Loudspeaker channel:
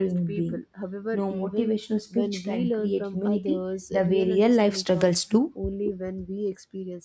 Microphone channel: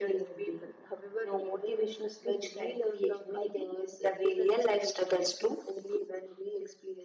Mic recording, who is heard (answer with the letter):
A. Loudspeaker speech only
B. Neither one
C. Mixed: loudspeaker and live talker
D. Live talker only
A